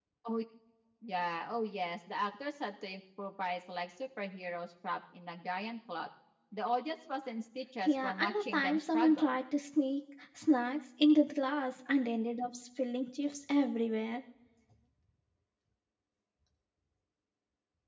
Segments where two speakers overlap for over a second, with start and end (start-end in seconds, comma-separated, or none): 7.9-9.4